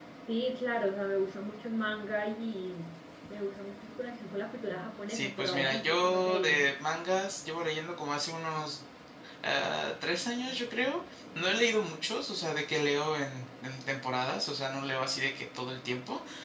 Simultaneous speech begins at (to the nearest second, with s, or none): 5 s